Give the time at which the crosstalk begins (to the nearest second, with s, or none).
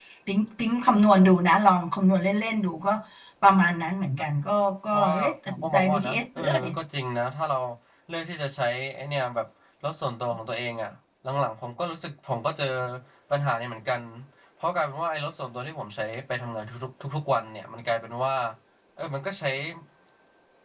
5 s